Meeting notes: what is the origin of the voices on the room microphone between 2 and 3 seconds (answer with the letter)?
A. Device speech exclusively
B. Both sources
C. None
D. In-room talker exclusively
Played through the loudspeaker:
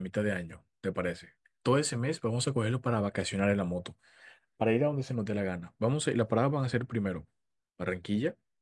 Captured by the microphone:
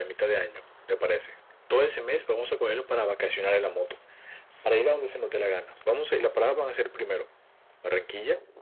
A